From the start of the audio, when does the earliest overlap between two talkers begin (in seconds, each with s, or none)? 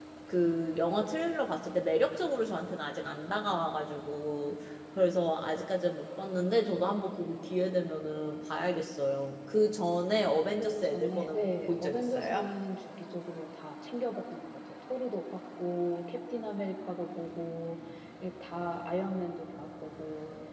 10.6 s